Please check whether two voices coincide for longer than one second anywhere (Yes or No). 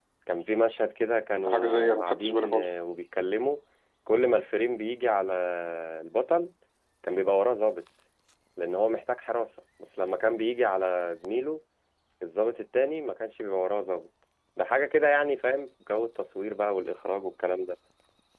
Yes